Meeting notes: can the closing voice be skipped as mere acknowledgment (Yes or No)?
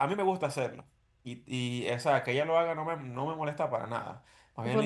No